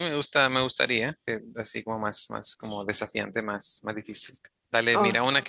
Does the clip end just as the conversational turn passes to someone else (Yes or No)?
No